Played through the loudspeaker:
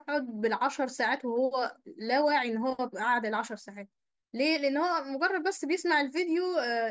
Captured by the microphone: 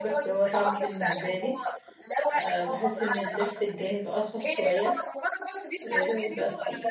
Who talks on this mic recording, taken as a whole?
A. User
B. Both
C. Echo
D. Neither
B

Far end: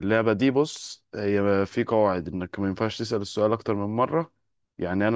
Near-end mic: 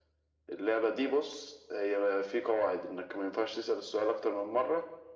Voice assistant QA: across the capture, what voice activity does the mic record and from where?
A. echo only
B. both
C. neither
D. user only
A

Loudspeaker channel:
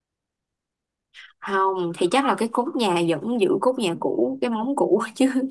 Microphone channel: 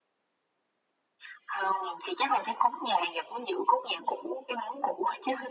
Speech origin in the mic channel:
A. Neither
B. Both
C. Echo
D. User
C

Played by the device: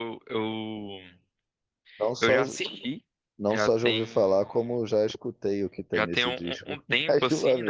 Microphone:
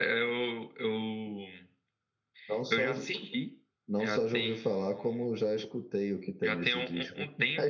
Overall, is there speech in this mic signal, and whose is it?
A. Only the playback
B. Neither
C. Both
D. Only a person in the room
A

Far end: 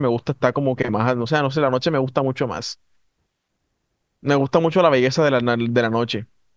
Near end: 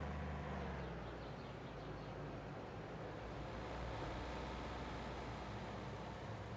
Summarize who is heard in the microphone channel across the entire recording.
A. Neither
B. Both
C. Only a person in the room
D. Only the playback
A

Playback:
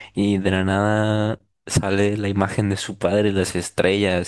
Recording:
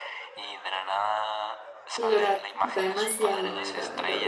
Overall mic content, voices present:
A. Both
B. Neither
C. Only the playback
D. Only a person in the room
A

